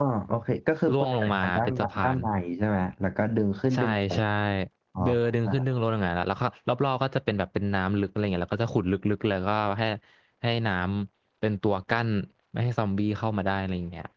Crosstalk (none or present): present